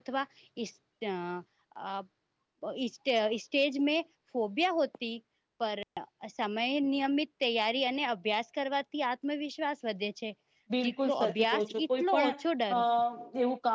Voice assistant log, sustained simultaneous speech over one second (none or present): present